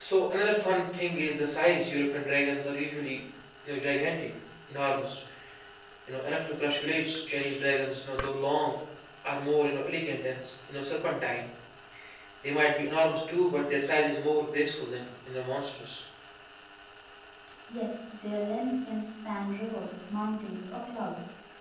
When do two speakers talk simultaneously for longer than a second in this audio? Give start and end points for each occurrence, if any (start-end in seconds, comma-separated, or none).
none